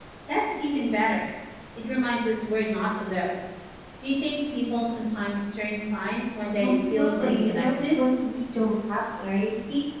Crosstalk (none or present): present